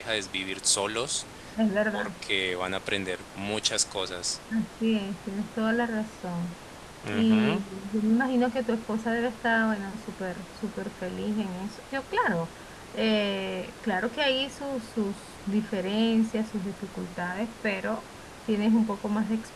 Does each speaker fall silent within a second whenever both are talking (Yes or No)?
Yes